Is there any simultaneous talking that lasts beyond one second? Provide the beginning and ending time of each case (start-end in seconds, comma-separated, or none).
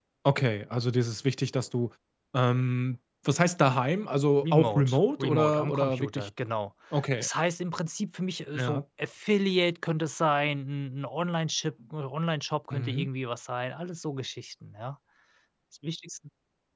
4.4-6.3